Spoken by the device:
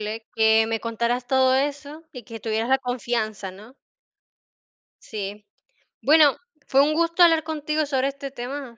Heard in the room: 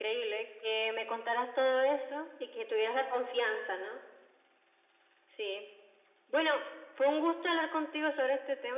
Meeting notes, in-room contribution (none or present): none